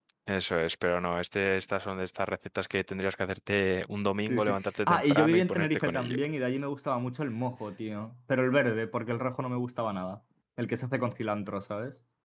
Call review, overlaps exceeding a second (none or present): present